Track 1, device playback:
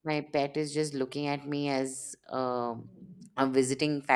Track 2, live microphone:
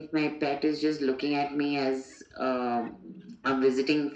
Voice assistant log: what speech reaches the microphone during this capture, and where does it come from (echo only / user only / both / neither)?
echo only